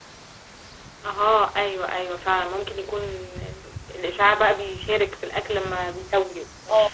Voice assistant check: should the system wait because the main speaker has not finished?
No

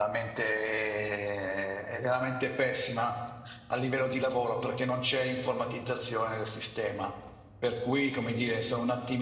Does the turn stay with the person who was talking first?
Yes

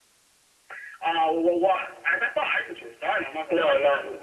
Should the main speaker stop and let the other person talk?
Yes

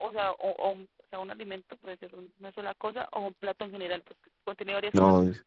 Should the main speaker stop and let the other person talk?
Yes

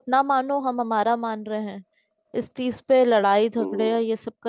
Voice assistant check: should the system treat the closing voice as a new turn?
No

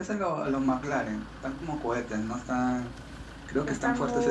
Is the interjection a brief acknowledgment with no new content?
No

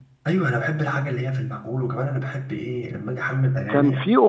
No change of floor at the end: No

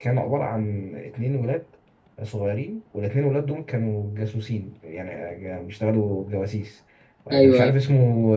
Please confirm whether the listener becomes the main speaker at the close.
No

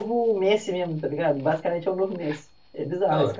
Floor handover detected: Yes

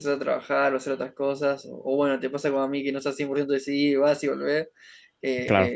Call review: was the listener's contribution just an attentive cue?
Yes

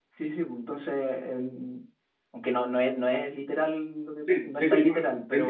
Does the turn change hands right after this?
Yes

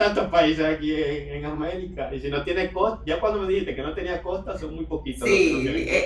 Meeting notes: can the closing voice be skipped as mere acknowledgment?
No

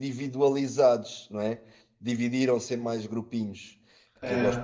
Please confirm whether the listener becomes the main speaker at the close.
No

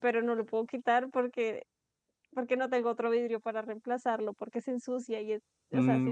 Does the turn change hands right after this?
Yes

